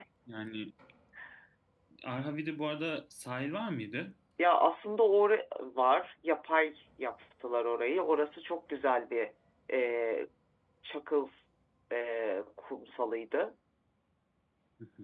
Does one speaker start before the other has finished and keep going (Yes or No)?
No